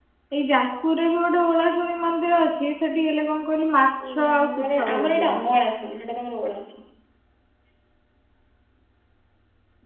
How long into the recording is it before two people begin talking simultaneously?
4 s

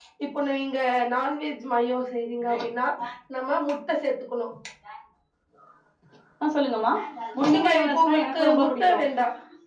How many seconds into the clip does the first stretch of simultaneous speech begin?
8 s

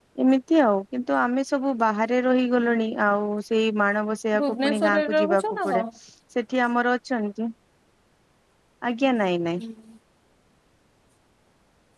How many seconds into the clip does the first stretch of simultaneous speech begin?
4 s

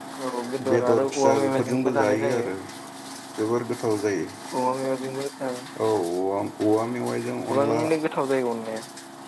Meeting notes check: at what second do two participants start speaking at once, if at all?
1 s

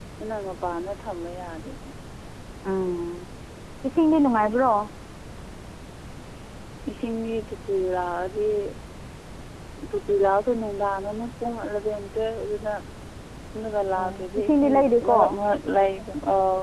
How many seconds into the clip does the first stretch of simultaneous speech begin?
14 s

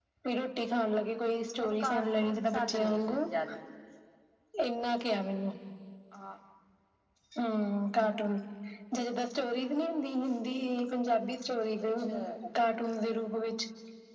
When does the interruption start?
2 s

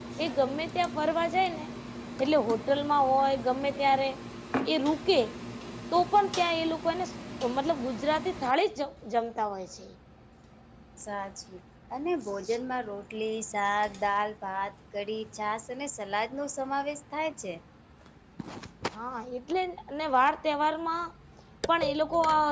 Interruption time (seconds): none

